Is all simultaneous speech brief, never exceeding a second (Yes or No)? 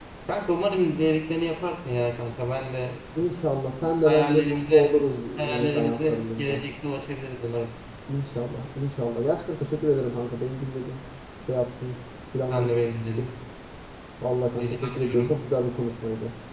No